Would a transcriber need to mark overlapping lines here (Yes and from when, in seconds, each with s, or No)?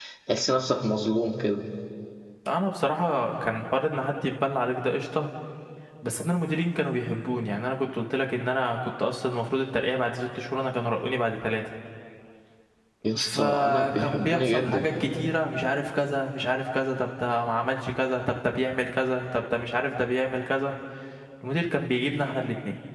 Yes, from 13.2 s